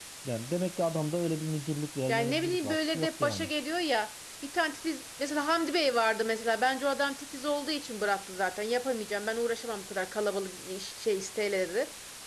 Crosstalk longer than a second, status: present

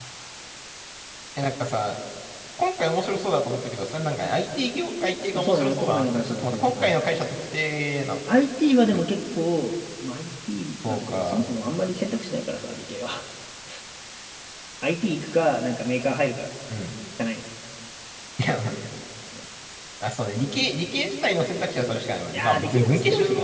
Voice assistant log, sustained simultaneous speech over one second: present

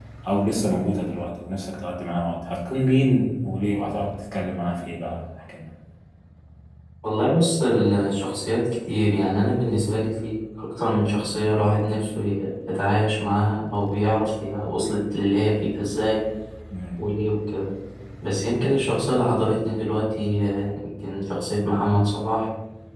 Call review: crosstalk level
none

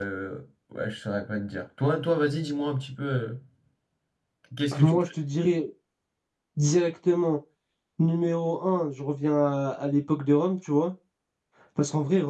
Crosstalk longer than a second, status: none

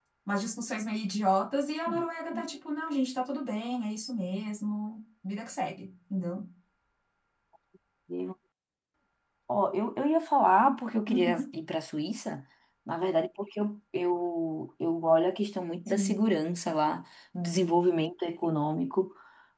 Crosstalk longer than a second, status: none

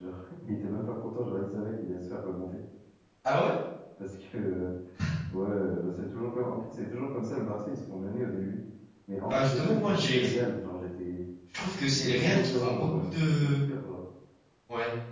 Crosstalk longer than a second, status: present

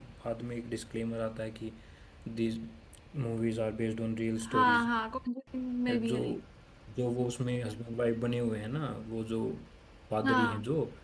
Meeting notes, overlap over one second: none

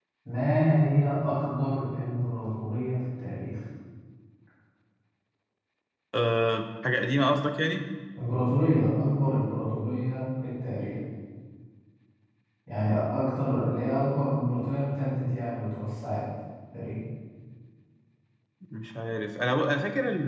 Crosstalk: none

